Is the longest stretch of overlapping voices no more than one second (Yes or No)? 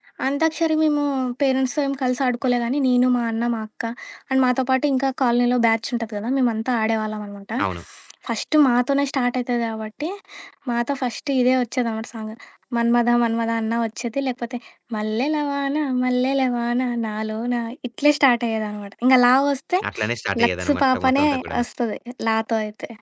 No